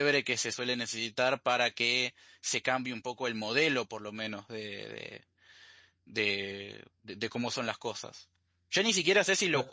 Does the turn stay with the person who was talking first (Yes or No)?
Yes